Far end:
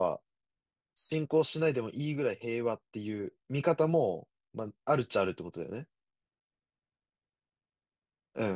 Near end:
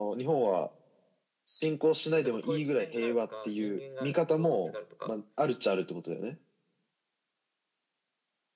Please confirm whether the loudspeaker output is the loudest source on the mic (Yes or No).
Yes